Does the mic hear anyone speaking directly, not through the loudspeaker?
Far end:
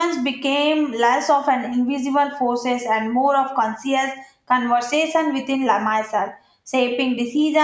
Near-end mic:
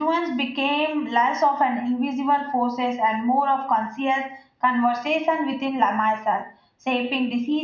No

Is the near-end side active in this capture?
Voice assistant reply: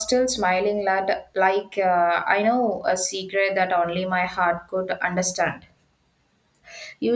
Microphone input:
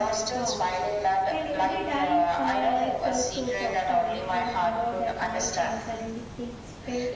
Yes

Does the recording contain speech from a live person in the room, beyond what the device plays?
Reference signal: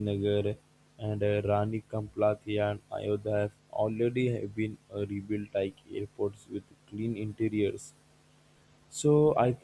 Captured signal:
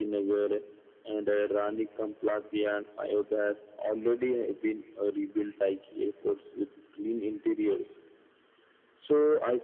No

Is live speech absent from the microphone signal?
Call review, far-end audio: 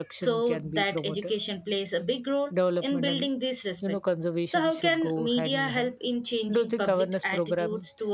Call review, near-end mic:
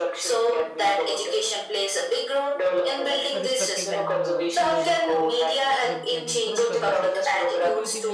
No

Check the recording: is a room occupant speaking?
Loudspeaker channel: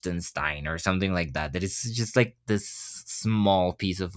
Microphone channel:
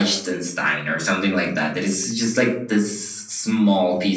No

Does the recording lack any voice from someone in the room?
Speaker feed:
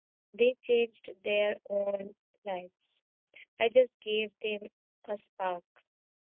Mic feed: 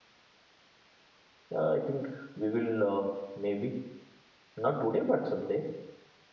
No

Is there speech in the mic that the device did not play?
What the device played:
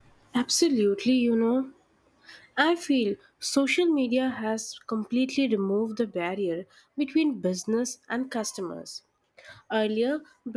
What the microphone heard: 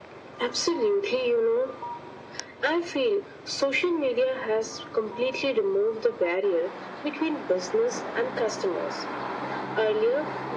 No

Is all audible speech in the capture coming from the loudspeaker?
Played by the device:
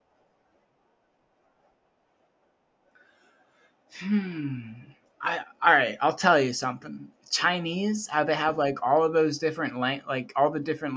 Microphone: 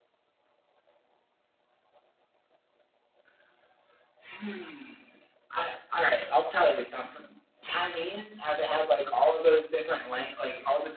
Yes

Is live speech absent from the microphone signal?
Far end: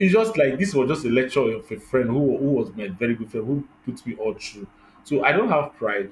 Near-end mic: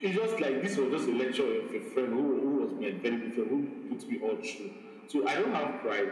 Yes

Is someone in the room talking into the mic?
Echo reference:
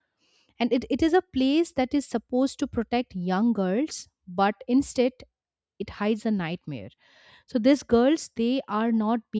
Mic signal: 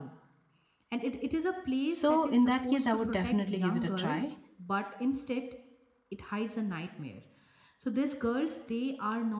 Yes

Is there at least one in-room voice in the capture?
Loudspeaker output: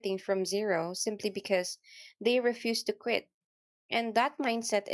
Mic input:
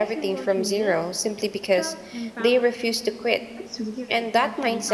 Yes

